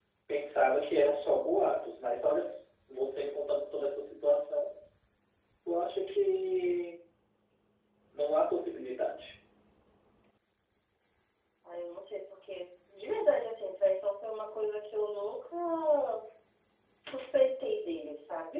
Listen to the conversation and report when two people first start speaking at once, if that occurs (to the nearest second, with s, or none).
none